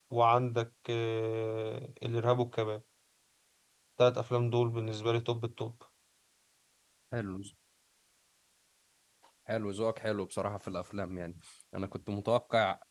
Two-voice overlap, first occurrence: none

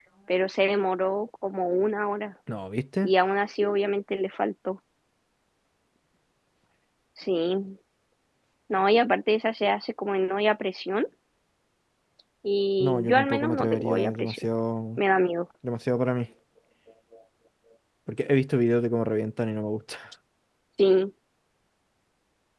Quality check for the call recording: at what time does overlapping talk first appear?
12.8 s

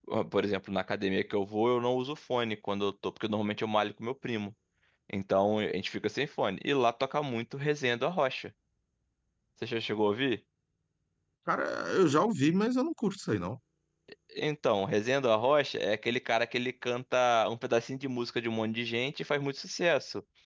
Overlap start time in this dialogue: none

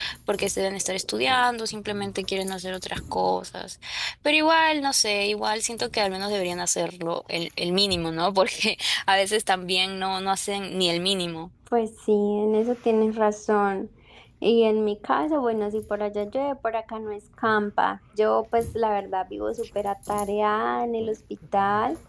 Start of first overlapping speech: none

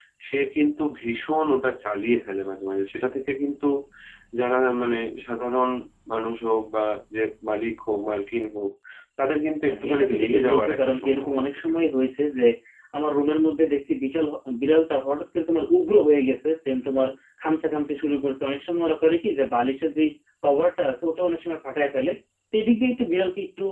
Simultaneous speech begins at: 9.7 s

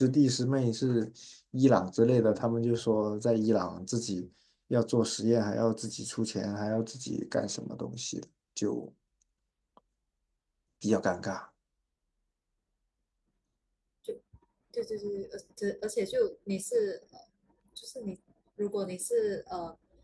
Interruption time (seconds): none

